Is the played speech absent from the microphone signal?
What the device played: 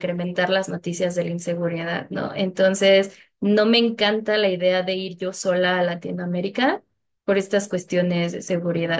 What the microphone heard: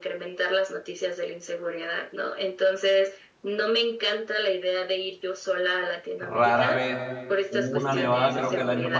No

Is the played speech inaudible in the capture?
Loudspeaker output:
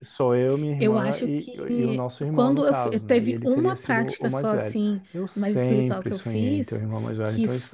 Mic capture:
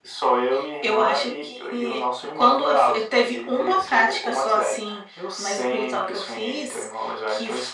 No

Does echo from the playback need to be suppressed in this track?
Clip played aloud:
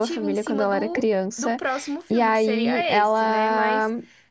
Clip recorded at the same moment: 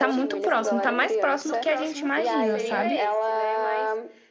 Yes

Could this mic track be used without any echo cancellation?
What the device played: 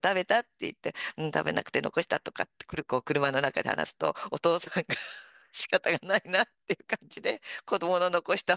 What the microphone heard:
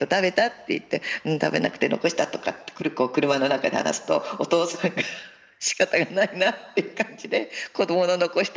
No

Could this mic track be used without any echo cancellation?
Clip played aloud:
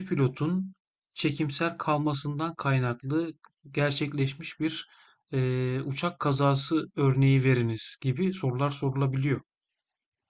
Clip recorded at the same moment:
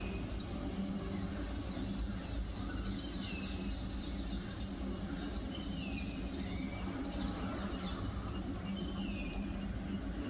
Yes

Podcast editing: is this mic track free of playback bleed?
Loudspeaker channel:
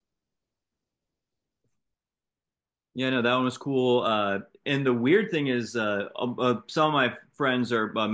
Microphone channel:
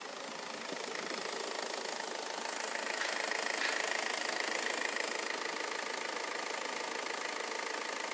Yes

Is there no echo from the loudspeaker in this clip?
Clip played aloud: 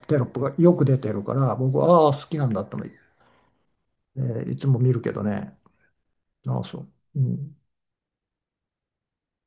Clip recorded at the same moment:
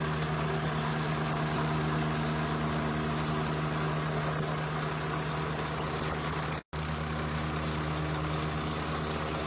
Yes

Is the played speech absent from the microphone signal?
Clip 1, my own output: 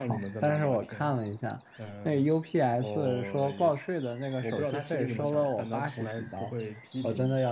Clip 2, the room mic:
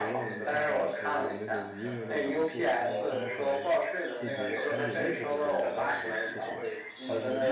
No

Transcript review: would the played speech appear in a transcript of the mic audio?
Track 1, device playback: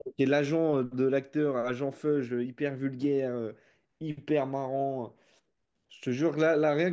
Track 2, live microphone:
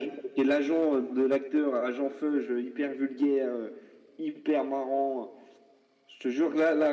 Yes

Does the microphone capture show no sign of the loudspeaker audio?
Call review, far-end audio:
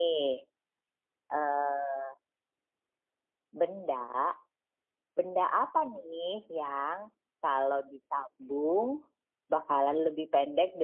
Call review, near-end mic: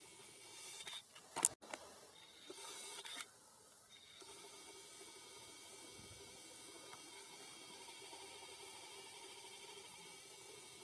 Yes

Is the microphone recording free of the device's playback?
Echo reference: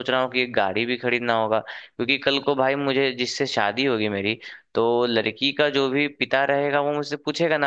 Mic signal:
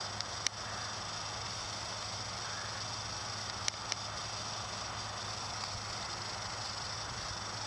Yes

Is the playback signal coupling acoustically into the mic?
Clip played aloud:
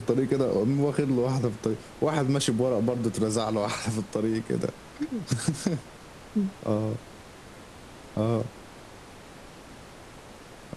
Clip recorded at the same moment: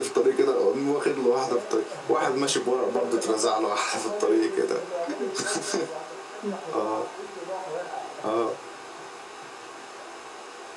Yes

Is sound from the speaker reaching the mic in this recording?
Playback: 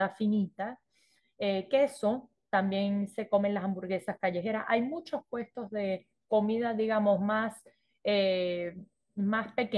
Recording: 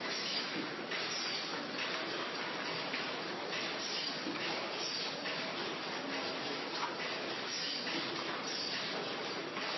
No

